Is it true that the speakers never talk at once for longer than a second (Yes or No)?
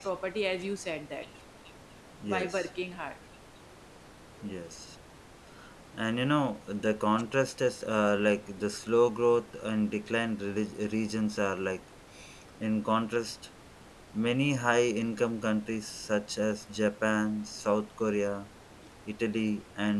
Yes